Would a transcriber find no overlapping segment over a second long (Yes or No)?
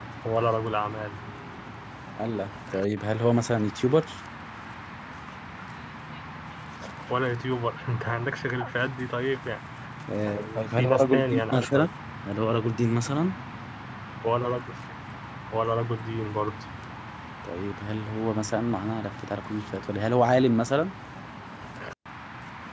No